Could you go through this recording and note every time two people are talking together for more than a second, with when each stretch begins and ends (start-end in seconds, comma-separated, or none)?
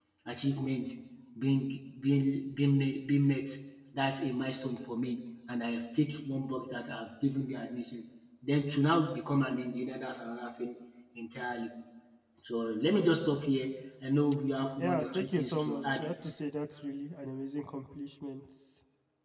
14.8-16.1